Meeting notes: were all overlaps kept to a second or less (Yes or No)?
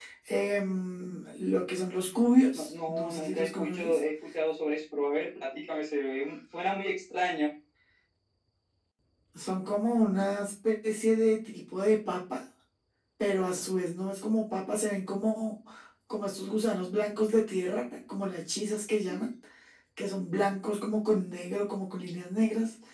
No